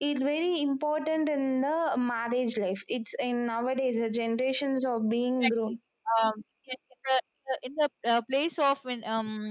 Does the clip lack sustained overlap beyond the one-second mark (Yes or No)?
Yes